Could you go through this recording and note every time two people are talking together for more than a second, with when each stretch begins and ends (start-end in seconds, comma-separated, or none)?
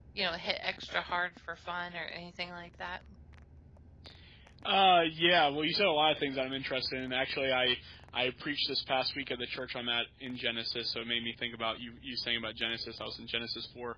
none